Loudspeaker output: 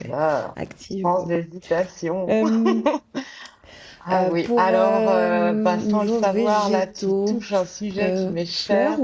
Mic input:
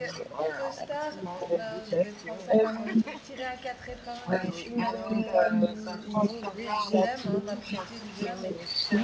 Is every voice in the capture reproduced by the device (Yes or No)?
No